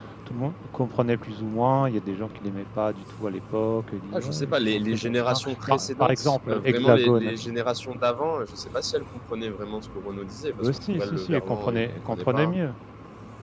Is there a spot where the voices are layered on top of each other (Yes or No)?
Yes